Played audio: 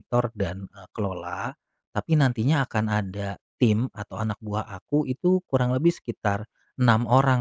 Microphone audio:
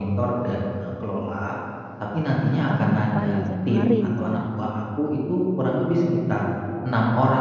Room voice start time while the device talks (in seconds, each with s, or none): 2.6 s